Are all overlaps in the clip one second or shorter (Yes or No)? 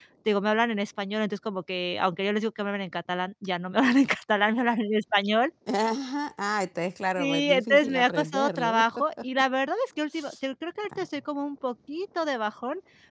No